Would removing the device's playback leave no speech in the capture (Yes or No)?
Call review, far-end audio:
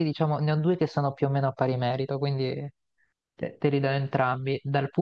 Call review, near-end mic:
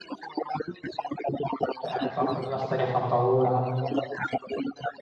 No